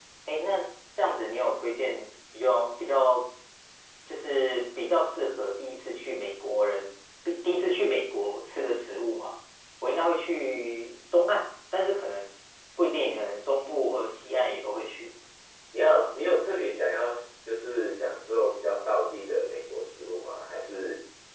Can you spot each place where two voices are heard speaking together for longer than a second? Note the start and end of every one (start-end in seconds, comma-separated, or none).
none